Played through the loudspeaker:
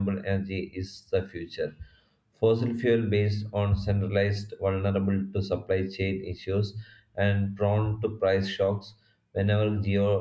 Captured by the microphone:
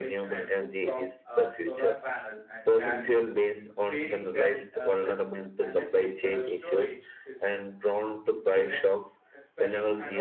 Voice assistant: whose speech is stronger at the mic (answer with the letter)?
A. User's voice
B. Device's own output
B